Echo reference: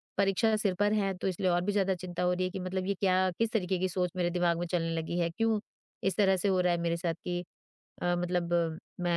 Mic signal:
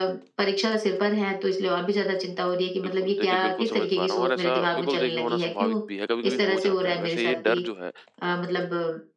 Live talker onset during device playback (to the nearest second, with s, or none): 3 s